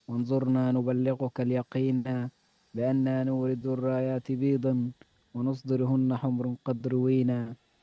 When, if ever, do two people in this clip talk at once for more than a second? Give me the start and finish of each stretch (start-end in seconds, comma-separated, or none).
none